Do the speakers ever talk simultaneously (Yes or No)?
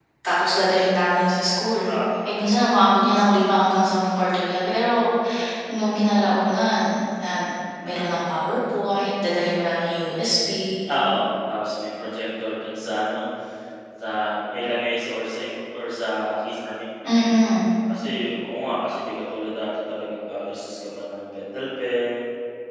No